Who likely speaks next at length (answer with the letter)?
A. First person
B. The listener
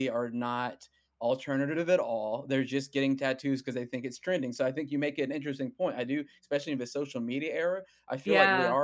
A